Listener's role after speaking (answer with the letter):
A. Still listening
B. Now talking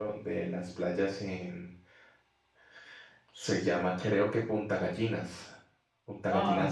B